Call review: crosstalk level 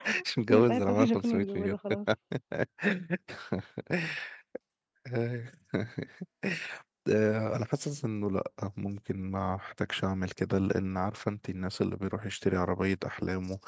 present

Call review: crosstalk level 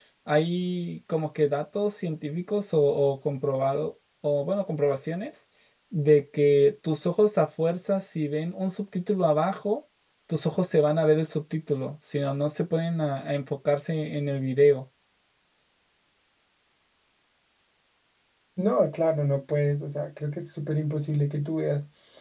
none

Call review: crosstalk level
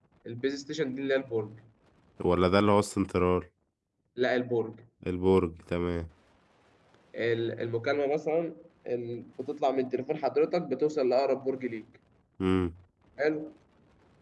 none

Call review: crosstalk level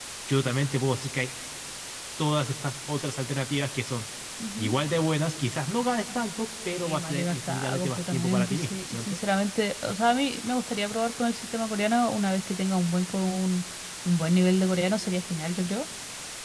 present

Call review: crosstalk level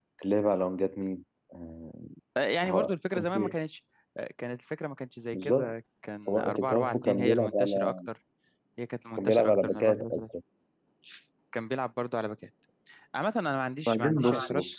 present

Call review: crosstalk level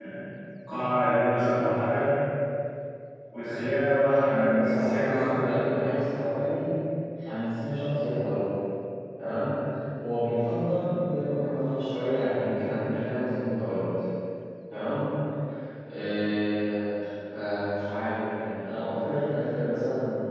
present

